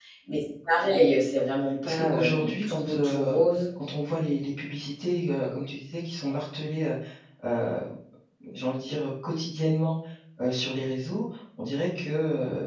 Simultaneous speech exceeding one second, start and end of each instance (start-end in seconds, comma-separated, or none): 1.8-3.4